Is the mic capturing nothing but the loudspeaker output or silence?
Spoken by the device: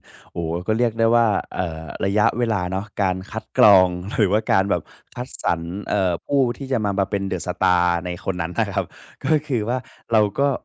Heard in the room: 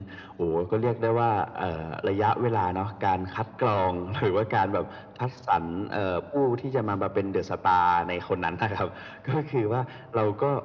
Yes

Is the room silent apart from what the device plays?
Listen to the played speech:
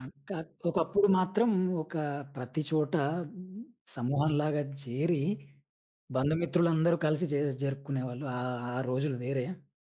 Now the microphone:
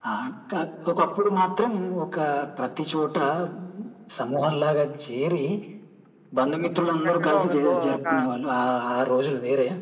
No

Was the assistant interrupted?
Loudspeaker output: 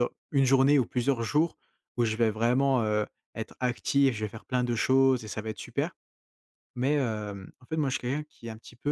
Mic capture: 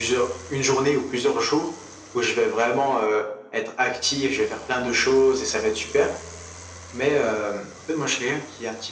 No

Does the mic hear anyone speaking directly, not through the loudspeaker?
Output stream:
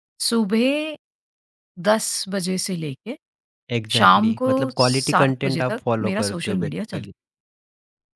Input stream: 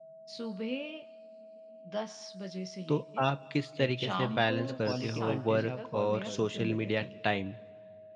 Yes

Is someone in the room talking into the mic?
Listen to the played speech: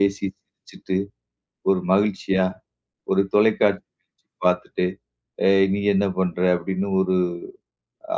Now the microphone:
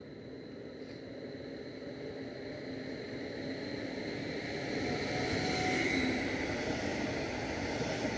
No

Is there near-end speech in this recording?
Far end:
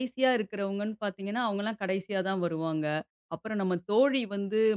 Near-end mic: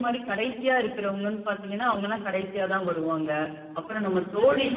No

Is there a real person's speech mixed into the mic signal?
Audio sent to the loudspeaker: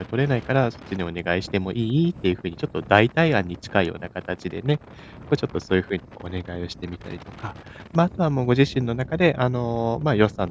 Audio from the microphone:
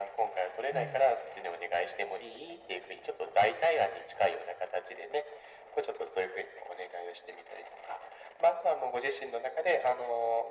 Yes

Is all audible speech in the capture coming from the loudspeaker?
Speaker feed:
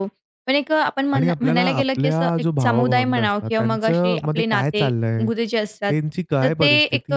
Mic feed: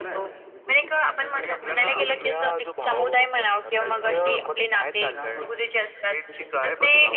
No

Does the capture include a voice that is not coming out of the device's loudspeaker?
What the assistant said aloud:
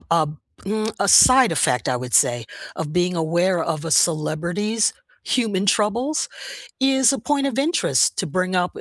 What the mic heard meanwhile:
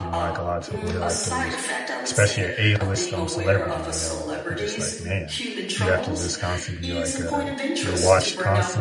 Yes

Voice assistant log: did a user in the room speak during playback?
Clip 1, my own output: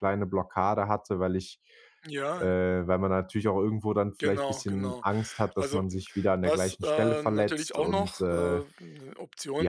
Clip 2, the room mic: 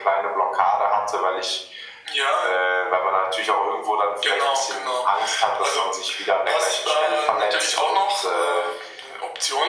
No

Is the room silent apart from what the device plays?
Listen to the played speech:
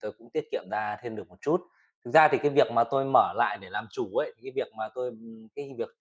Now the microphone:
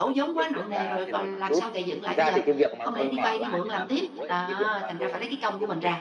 No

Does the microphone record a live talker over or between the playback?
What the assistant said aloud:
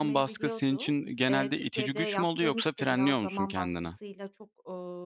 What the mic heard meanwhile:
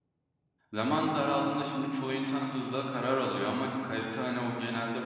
Yes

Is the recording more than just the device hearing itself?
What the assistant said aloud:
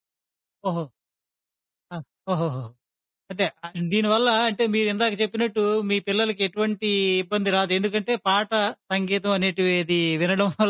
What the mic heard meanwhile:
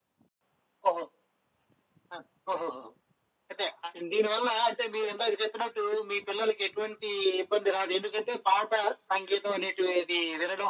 No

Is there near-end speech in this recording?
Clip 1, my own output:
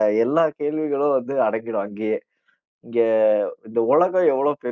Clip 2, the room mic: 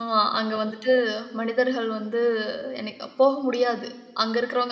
Yes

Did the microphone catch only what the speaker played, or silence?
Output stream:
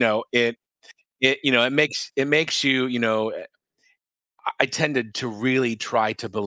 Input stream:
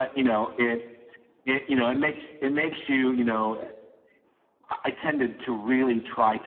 Yes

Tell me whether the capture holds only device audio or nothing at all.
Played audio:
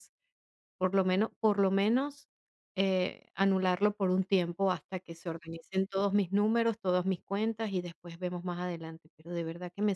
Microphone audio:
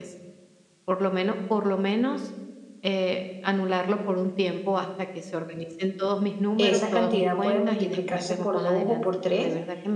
No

